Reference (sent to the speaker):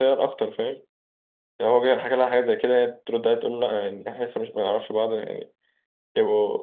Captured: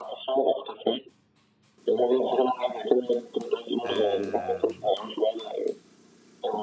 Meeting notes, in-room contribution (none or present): present